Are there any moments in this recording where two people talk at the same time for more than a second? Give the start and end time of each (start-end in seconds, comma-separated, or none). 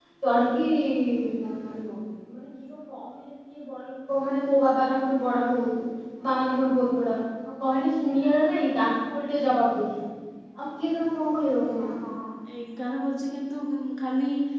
none